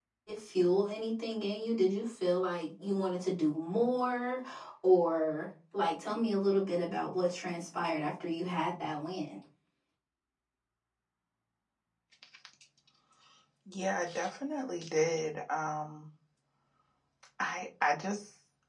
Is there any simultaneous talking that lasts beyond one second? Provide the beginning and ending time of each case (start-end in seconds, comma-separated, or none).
none